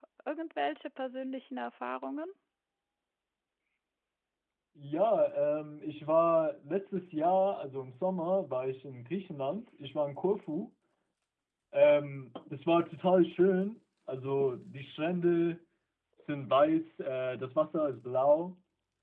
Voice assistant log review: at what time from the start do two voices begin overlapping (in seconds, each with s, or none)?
none